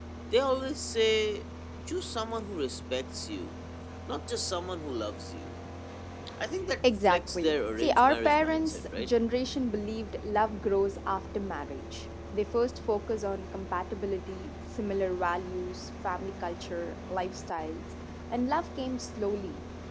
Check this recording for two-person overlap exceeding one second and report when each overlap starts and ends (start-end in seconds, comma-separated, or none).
7.0-9.1